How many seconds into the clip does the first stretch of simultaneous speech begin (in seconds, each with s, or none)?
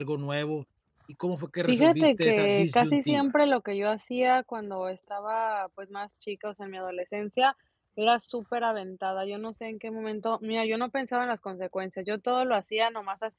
1.7 s